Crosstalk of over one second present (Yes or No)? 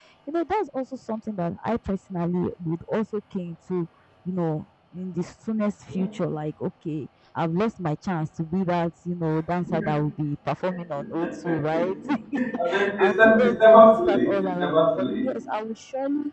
Yes